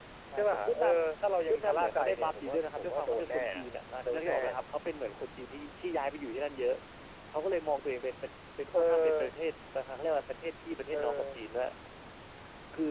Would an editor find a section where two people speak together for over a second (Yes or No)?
Yes